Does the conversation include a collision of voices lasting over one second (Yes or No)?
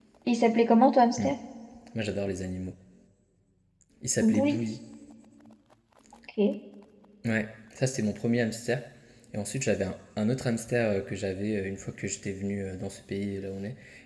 No